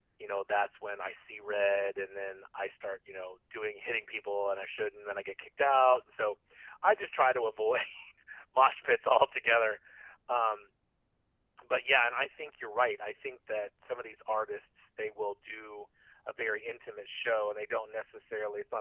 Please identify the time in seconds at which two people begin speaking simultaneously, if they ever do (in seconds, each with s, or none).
none